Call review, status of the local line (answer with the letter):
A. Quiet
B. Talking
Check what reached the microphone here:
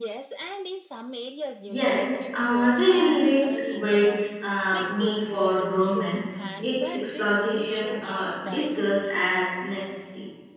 B